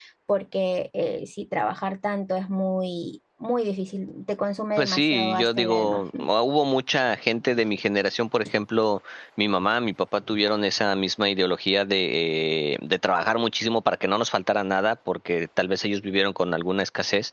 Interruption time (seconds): 4.8 s

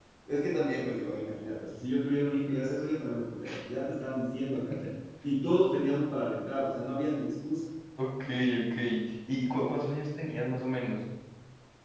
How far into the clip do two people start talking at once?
none

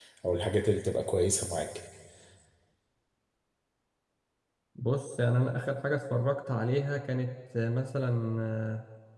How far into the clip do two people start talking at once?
none

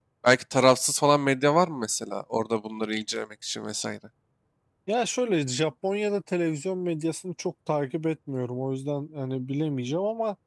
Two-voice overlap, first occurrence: none

